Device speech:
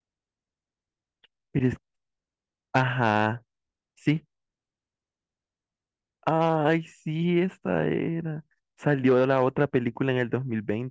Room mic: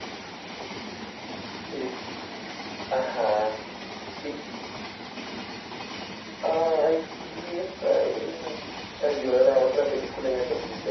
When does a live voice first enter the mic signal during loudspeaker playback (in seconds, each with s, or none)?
none